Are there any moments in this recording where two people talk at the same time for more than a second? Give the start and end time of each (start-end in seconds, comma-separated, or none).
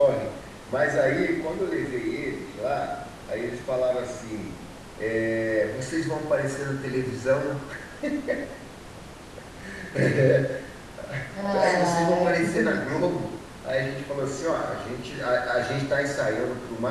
11.6-13.2